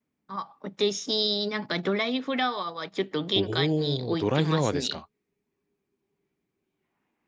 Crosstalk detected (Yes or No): Yes